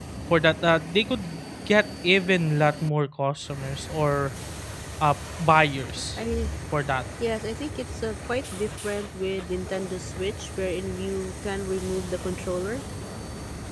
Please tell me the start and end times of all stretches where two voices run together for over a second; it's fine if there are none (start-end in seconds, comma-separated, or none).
none